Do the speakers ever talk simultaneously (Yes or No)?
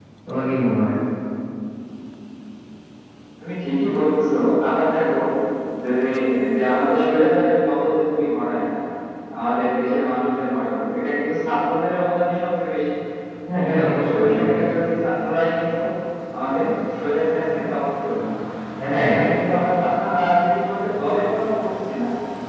Yes